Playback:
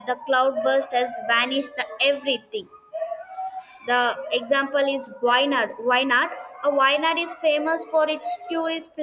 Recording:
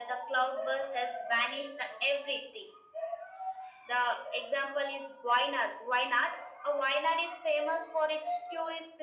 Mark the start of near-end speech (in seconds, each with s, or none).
none